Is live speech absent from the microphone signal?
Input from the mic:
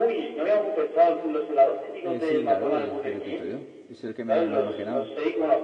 No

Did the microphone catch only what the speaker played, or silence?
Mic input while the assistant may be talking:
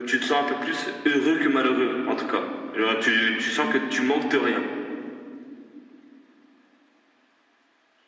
Yes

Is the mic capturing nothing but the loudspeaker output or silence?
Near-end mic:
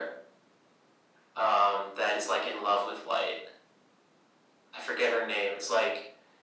Yes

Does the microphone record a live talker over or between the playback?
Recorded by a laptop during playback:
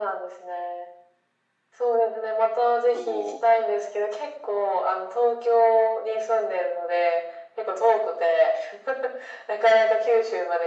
Yes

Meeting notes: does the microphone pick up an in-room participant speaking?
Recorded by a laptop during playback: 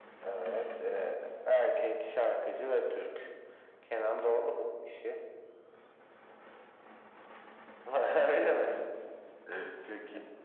No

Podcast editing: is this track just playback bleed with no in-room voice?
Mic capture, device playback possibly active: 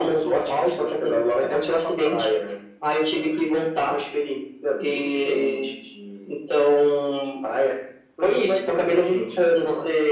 Yes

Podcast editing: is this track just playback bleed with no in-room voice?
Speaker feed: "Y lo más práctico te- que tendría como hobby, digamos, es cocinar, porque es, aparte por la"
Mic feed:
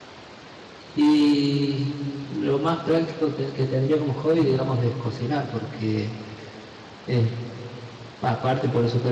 No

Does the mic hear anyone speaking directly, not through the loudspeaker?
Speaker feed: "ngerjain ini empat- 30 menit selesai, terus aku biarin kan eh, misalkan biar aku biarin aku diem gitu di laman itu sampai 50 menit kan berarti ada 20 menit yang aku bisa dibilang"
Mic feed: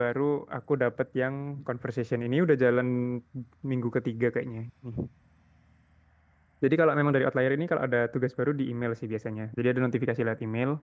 Yes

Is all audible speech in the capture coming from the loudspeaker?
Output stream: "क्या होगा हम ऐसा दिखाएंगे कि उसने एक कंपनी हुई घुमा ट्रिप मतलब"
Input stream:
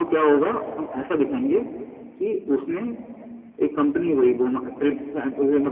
Yes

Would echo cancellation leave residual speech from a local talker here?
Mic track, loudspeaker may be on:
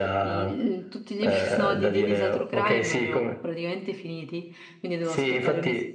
Yes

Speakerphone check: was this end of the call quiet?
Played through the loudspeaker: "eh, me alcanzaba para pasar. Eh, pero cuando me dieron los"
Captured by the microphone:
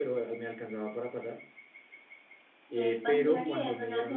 No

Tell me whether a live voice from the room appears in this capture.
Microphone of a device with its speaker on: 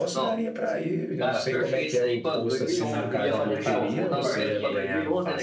Yes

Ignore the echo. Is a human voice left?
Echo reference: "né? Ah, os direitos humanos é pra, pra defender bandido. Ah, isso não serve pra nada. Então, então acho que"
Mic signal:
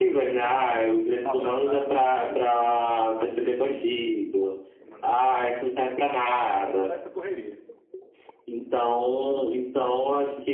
Yes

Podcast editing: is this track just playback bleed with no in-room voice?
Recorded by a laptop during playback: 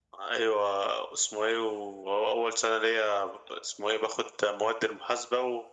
Yes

